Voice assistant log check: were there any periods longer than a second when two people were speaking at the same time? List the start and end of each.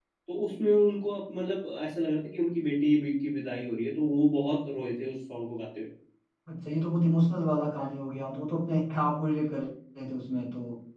none

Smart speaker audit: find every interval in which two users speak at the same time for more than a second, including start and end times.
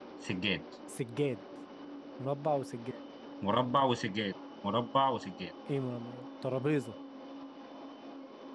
none

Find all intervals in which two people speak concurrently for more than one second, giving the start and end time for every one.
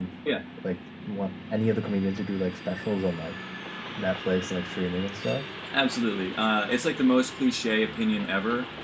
none

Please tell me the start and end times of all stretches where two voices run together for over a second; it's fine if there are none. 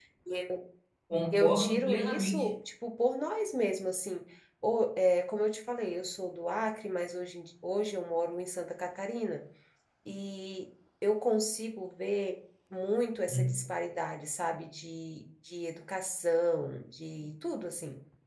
1.3-2.5

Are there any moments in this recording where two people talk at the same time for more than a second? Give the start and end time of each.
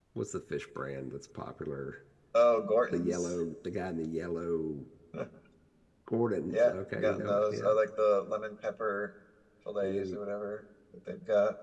6.5-7.7

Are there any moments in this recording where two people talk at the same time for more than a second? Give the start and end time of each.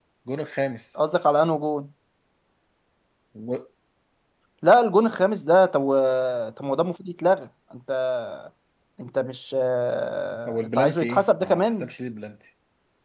10.5-11.9

